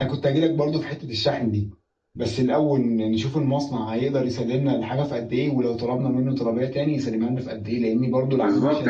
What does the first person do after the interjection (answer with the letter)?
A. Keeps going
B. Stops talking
B